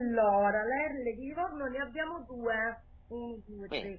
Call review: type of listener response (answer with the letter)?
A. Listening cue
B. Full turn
A